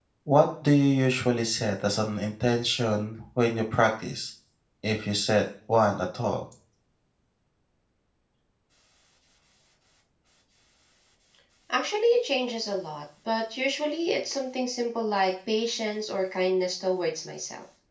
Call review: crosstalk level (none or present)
none